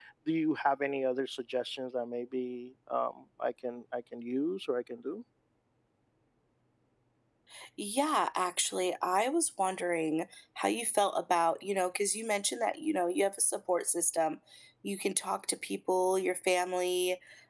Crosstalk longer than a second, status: none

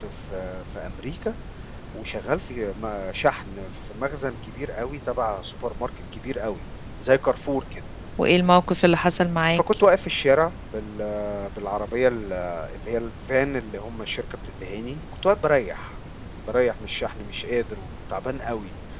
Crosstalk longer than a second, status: none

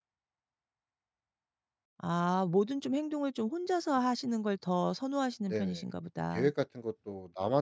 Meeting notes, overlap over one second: none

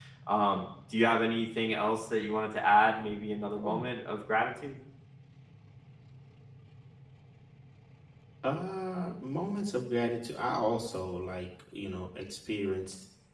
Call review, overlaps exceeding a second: none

